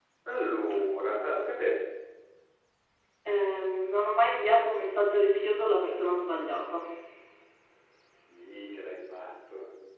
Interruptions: none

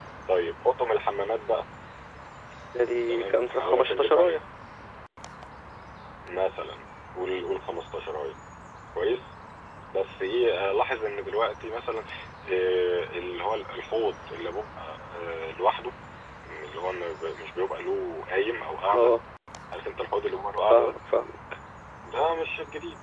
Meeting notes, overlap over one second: present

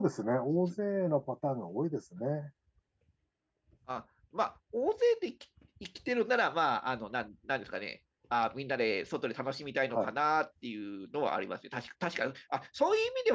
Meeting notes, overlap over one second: none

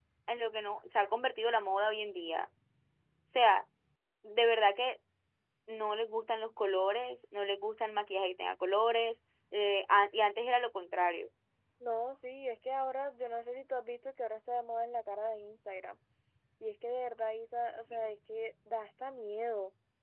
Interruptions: none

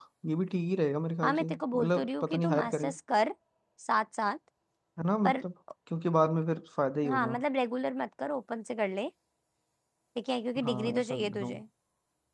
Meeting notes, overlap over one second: present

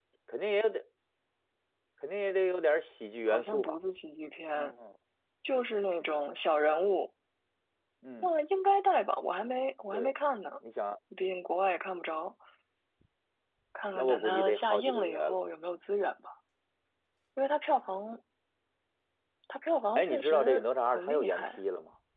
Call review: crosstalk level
present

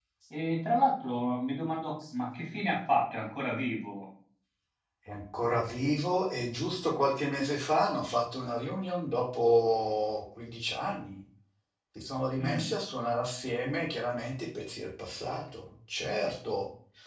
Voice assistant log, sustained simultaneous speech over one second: none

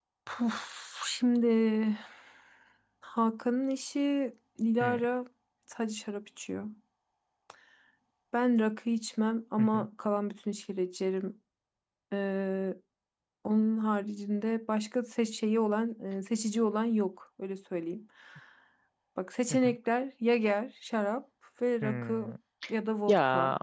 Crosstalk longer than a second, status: none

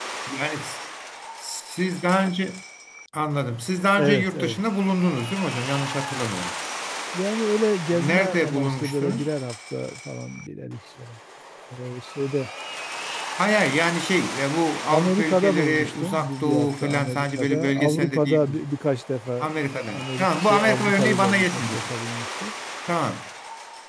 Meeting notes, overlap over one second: present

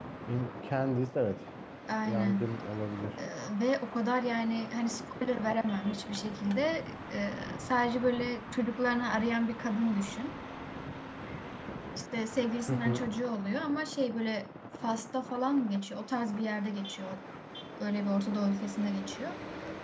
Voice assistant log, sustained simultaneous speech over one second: none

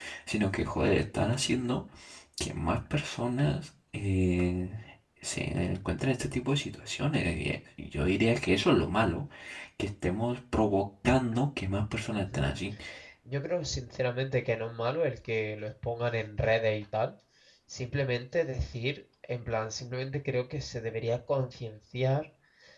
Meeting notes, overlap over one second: none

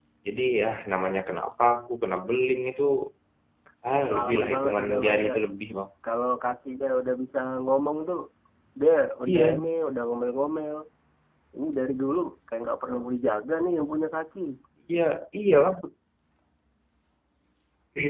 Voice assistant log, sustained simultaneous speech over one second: present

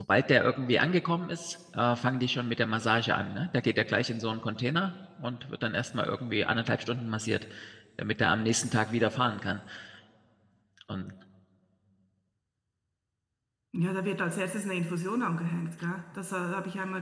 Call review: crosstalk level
none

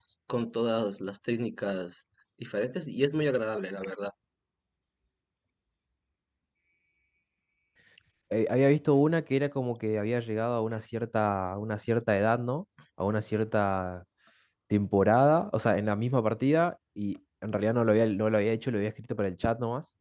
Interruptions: none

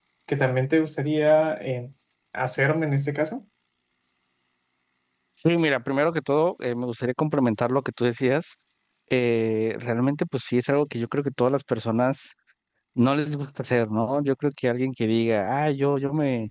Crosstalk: none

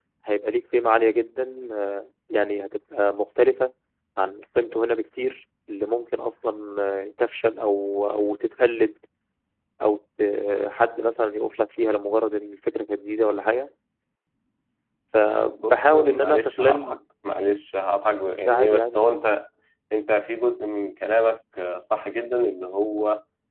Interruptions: present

